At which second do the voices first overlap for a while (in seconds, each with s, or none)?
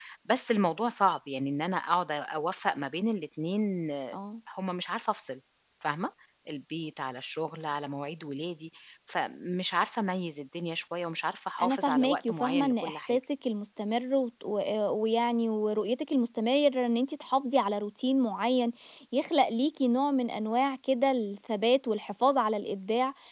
11.6 s